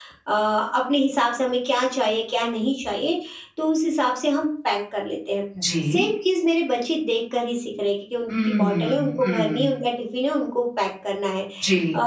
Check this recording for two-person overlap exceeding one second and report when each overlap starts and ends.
8.5-9.7

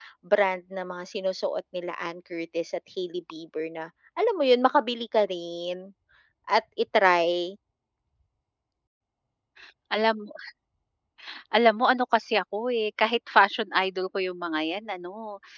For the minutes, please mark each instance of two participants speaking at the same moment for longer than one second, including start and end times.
none

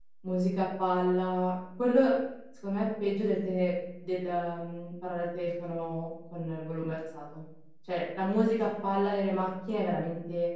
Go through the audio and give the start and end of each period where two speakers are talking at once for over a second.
none

